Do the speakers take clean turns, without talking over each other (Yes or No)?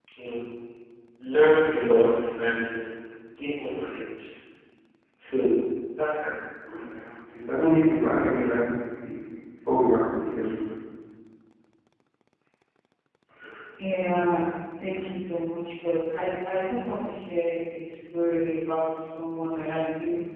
Yes